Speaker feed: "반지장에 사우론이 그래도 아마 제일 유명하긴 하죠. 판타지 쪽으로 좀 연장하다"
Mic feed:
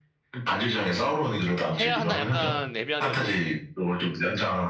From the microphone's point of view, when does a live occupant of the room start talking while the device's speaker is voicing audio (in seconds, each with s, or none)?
1.8 s